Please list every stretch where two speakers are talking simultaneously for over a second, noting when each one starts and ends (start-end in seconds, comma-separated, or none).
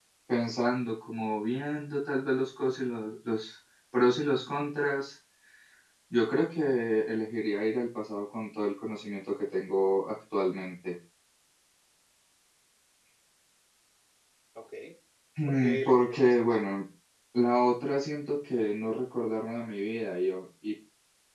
15.5-16.7